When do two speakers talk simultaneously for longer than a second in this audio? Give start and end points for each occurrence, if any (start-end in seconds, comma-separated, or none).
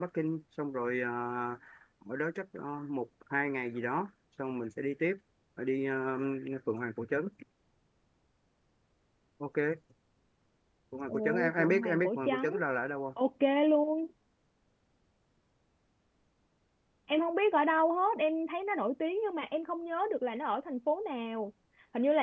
11.1-12.6